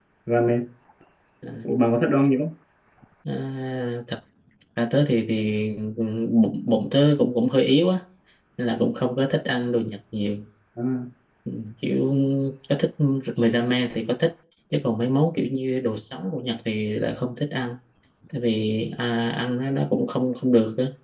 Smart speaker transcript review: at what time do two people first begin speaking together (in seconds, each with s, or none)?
none